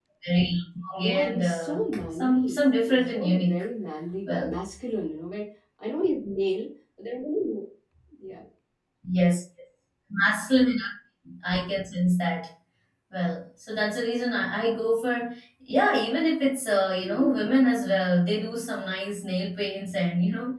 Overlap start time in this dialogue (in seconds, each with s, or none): 1.0 s